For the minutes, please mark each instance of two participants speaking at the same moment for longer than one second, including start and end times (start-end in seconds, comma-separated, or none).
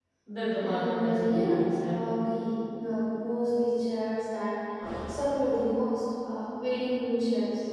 0.7-2.0